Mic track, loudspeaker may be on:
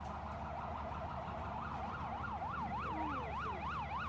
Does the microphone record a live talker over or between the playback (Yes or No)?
No